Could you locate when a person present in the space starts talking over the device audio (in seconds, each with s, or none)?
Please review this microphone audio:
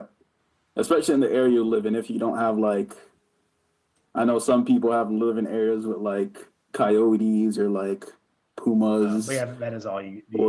9.0 s